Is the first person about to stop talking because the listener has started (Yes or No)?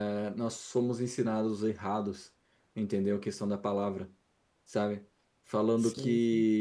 No